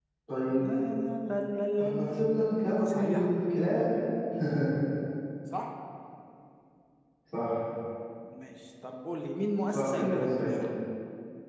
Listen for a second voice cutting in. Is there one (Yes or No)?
Yes